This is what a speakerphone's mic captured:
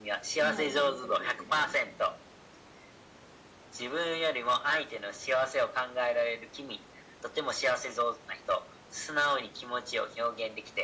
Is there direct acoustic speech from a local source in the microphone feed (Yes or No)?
Yes